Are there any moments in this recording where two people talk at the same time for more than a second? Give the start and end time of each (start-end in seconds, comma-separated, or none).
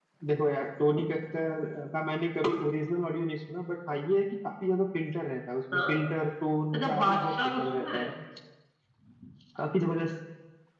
6.7-8.1